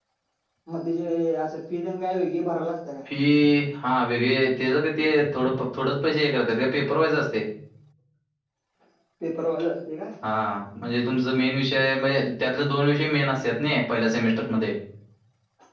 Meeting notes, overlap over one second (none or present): none